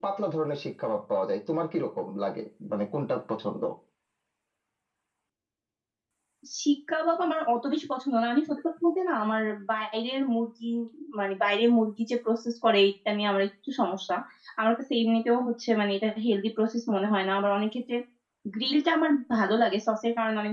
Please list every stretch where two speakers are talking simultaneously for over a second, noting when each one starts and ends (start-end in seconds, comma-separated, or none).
none